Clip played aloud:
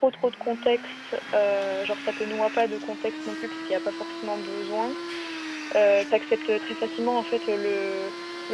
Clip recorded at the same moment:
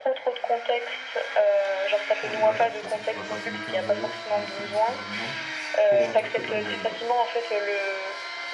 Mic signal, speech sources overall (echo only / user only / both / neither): both